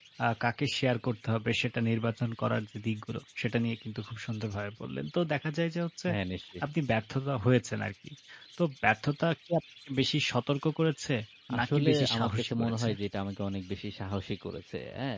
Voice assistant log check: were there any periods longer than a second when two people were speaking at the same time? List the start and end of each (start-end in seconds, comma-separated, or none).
11.6-12.9